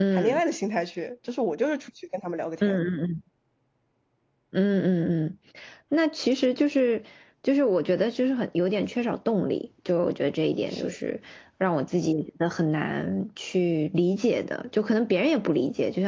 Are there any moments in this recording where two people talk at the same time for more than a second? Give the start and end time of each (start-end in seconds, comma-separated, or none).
none